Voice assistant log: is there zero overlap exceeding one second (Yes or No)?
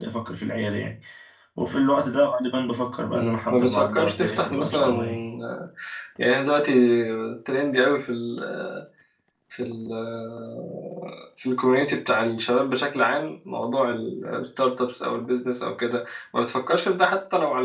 No